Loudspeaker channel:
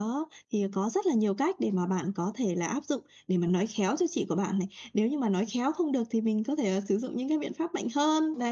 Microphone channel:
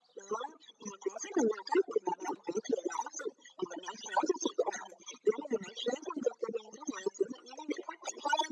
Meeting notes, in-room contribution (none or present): none